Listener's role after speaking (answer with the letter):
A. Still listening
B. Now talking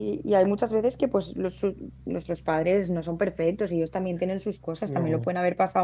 A